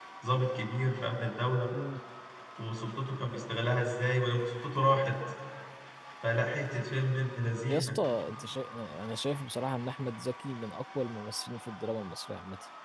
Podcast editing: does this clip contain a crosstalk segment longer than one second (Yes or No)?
No